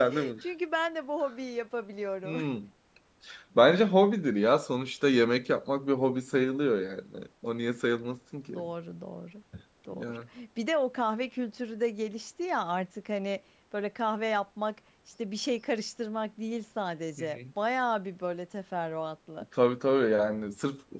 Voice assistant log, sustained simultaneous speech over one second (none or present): none